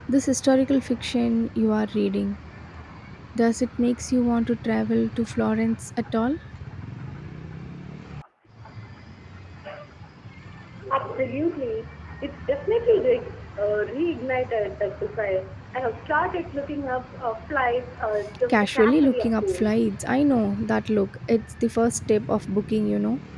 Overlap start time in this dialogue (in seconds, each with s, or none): 18.5 s